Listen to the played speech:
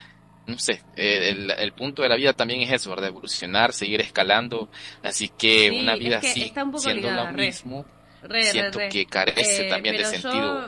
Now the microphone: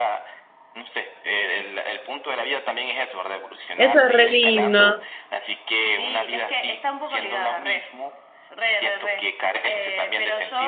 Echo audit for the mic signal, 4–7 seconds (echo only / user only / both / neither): both